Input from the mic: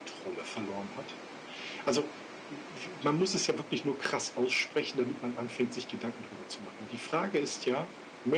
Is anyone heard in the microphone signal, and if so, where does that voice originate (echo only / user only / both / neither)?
echo only